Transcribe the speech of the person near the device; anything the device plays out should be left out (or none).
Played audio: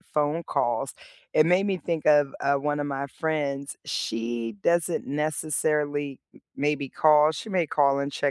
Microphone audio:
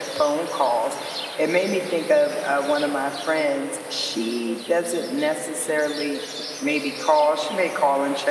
none